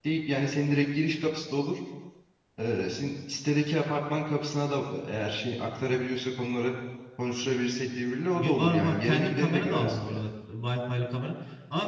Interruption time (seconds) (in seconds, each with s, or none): 8.3 s